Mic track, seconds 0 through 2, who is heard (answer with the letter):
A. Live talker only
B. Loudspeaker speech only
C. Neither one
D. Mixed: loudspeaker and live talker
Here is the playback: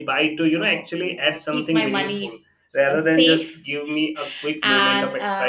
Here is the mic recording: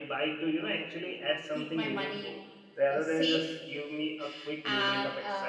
B